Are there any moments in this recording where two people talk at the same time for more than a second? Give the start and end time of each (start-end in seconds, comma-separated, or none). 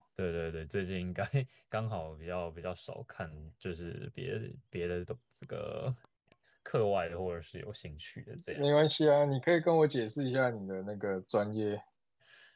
none